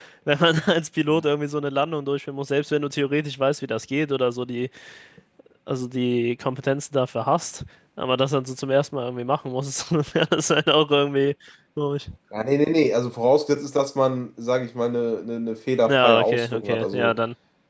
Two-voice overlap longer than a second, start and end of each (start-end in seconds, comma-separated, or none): 15.9-17.1